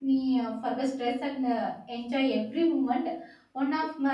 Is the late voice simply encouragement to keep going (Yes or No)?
Yes